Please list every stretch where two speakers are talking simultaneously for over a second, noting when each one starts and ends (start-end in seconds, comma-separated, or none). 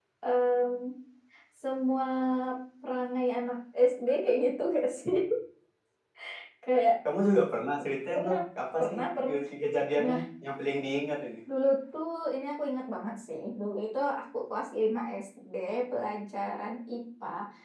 none